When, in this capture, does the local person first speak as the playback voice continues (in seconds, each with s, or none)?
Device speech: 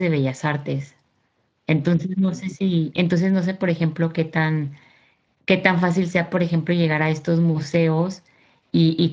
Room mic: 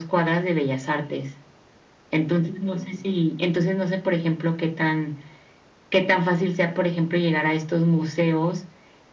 none